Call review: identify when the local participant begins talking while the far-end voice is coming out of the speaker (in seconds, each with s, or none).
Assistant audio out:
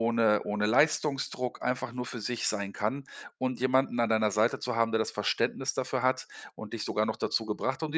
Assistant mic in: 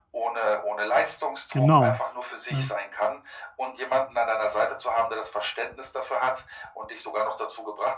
1.5 s